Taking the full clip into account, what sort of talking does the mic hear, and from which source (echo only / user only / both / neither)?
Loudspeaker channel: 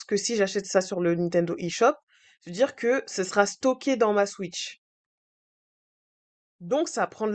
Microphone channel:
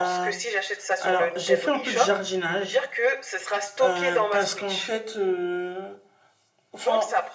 both